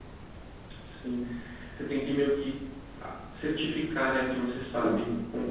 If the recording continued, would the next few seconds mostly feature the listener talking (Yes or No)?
Yes